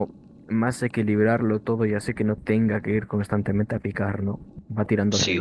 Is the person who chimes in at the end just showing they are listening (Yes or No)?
No